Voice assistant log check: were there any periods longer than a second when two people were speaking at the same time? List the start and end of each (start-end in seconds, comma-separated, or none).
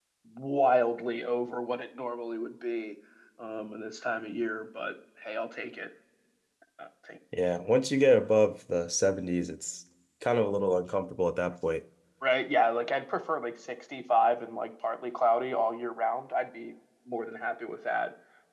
none